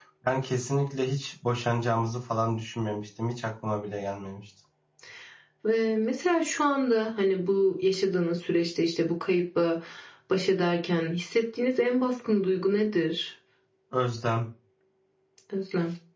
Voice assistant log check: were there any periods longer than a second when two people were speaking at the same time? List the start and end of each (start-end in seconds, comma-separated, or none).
none